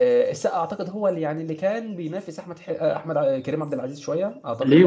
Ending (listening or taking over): taking over